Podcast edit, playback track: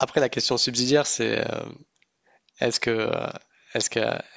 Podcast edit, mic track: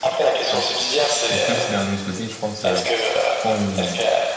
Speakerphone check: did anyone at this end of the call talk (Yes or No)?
Yes